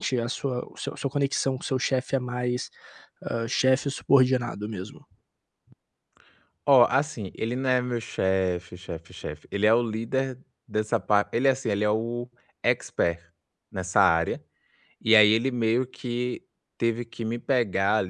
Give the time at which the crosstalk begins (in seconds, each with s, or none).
none